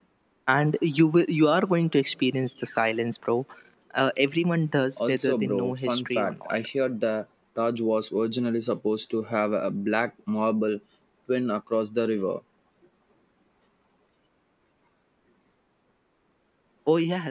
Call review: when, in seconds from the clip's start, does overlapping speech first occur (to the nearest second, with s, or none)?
5 s